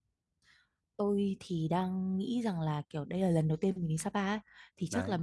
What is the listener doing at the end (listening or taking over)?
listening